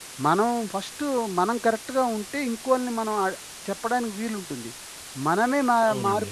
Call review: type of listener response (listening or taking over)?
listening